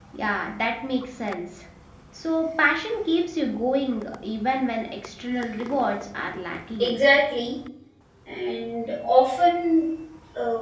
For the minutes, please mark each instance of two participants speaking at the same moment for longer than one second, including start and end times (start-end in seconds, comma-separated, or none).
none